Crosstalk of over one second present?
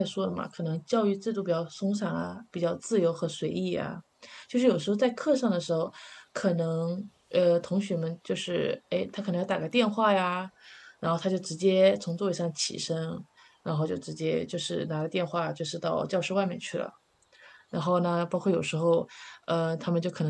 No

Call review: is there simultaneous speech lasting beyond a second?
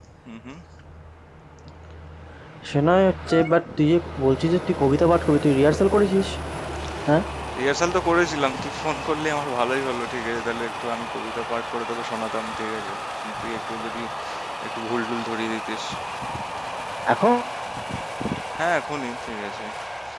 No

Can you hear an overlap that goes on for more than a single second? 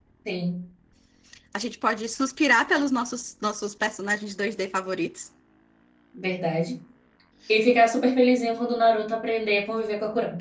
No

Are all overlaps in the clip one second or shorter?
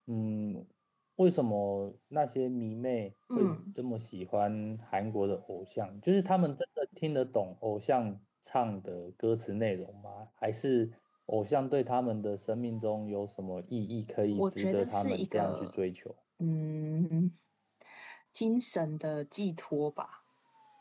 No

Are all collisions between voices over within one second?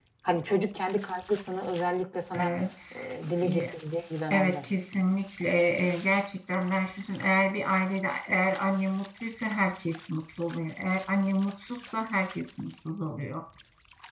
Yes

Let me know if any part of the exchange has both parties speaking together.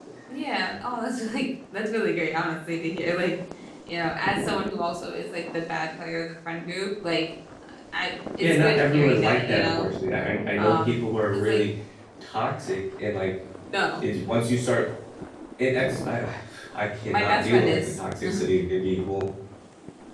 Yes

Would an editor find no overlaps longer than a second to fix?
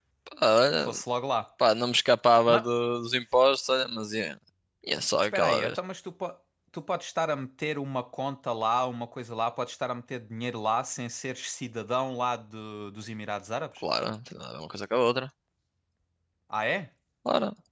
Yes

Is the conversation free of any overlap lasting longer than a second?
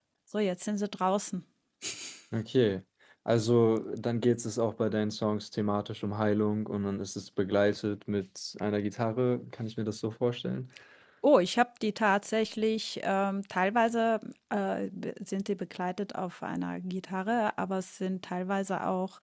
Yes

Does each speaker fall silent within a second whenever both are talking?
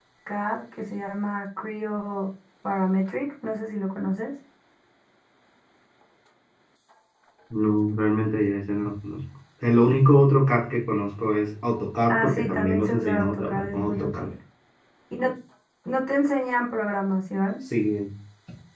No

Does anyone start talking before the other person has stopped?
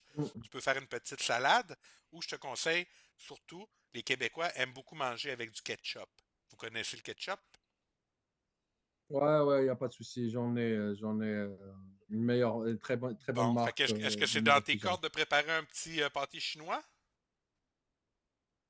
Yes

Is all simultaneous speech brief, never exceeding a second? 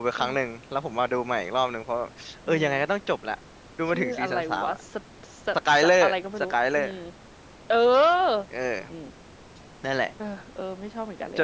No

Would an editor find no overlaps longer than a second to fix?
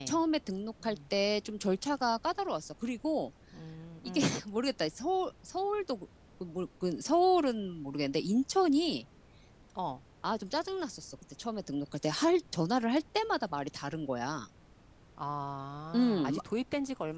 Yes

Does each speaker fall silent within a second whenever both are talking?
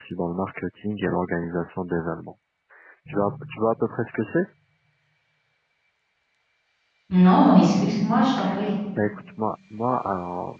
Yes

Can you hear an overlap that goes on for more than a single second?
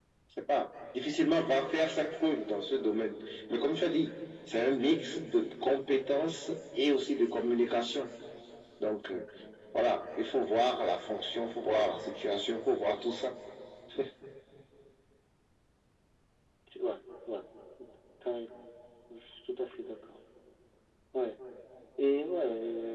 No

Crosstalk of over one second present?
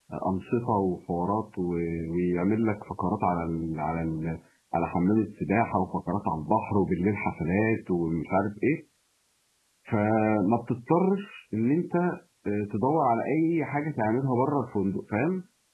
No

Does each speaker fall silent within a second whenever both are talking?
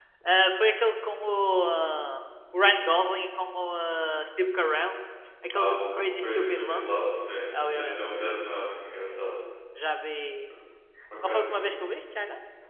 No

